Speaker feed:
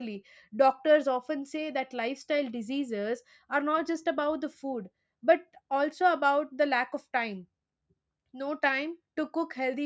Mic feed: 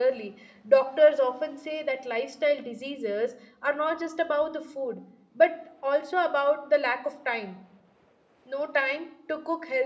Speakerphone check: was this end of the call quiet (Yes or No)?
Yes